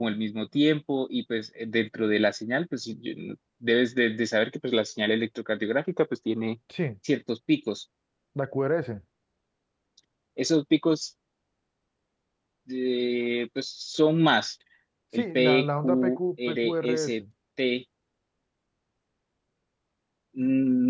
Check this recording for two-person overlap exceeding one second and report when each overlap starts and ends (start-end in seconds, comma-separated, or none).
15.2-17.2